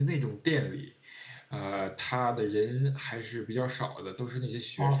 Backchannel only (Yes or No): No